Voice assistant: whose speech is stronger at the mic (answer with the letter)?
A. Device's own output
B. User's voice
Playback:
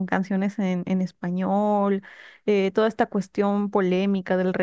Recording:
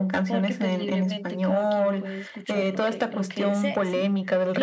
A